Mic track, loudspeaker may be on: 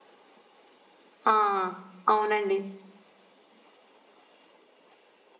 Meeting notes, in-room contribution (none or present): present